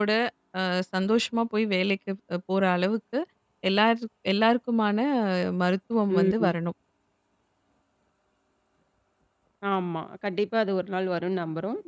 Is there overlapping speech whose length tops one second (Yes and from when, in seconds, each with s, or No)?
No